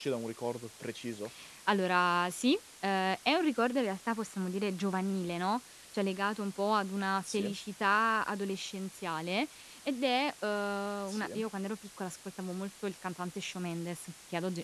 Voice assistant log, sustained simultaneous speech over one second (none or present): none